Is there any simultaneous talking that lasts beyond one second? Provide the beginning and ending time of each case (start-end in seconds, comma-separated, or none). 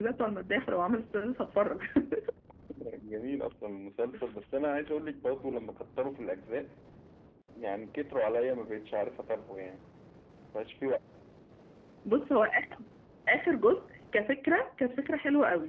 none